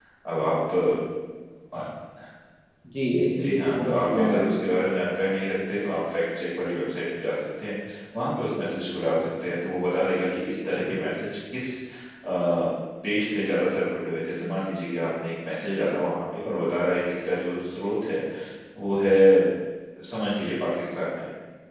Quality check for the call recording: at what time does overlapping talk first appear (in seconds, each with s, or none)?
3.4 s